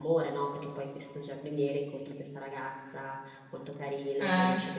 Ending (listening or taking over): listening